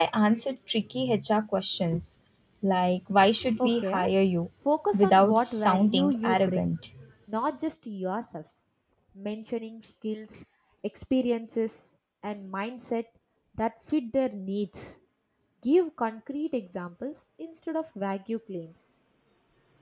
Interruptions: present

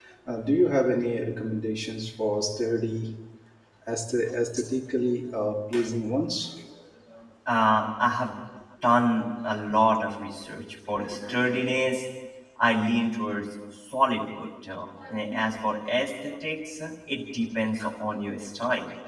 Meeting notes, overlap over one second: none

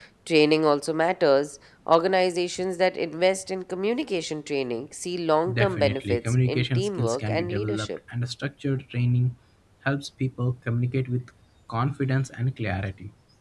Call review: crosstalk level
present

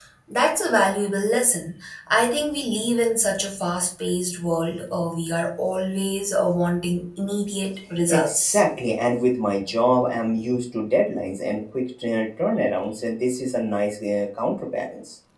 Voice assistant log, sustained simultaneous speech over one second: none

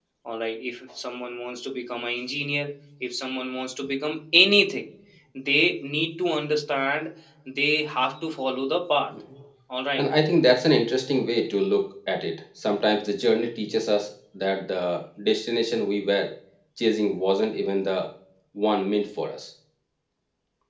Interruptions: none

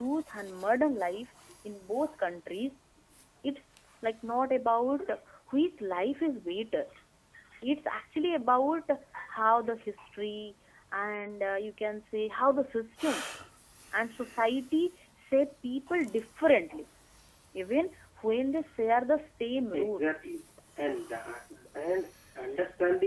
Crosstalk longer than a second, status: none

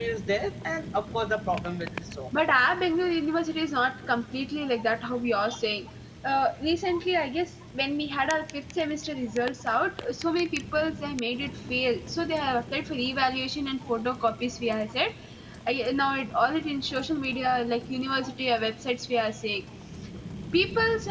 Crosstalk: none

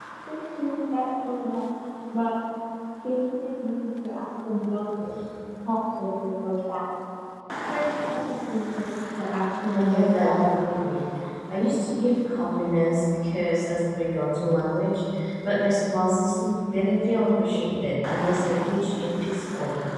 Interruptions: present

